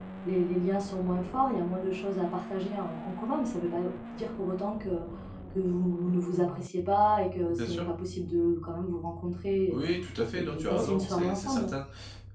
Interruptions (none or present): present